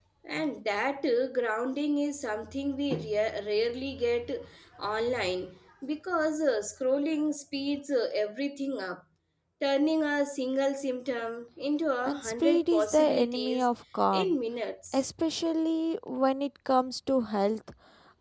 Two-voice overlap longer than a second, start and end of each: 12.0-13.7

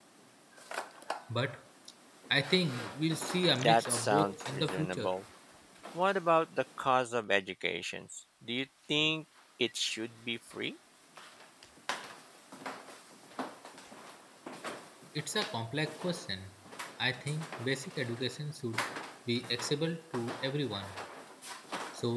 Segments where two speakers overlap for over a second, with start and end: 3.5-5.1

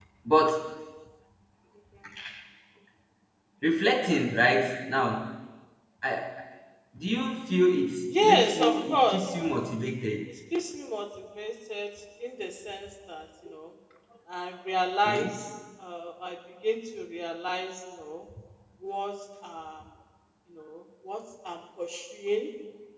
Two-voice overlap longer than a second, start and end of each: 8.1-9.3

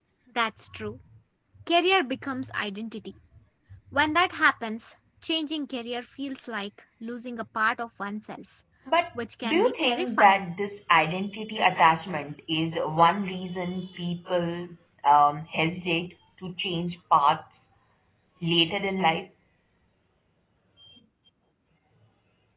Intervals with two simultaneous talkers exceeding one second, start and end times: 9.2-10.4

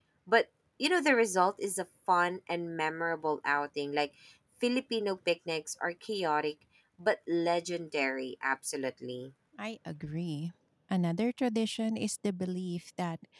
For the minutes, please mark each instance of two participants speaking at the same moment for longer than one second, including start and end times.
none

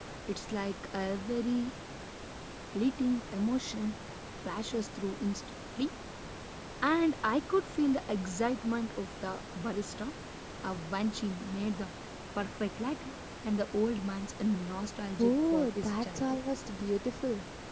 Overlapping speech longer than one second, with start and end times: 15.2-16.4

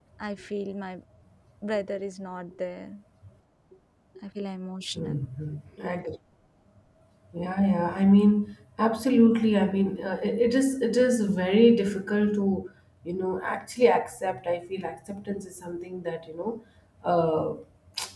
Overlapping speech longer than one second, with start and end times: none

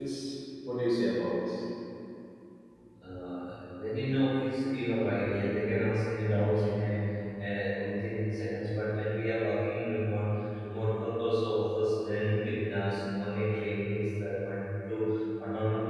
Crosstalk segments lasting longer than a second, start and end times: none

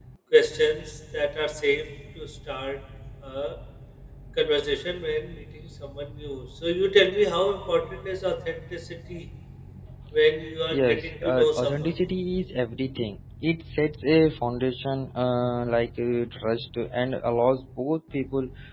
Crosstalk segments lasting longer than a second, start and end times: 10.7-11.9

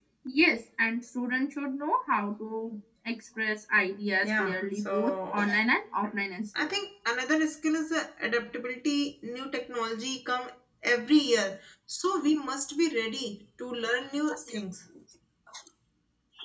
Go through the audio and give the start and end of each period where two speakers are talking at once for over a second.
4.2-5.5

